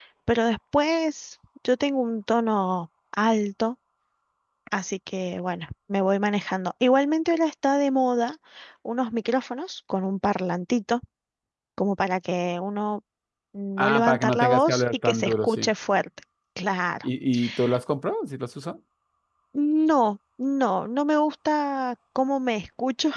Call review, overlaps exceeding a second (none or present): present